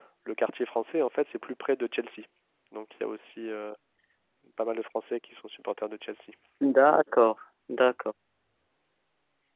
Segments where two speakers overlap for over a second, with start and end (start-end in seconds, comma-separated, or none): none